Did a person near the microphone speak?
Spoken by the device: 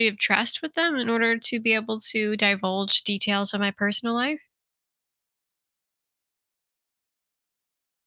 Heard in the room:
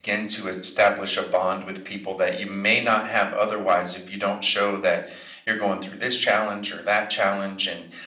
Yes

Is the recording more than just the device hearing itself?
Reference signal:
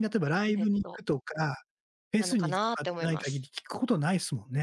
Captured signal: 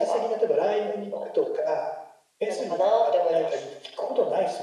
No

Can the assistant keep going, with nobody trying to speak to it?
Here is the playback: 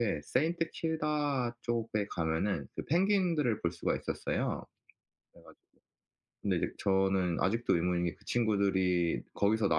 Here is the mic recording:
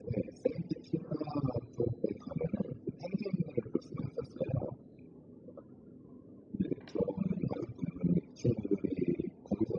Yes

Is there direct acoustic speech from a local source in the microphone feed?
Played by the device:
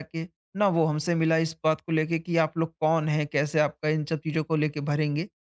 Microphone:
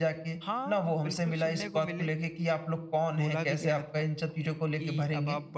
Yes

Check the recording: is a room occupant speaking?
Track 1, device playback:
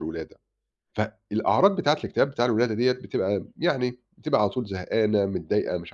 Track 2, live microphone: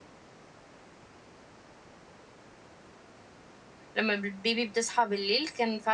Yes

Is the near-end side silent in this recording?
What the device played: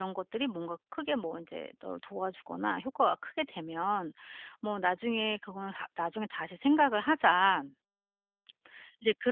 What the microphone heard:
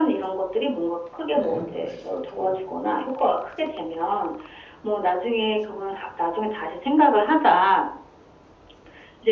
No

